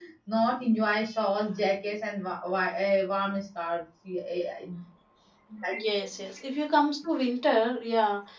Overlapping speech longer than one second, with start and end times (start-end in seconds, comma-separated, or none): none